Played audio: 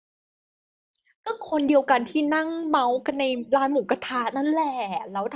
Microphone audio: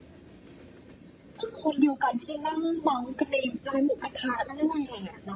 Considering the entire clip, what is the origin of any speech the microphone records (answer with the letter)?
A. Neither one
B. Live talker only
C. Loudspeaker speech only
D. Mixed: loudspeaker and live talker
C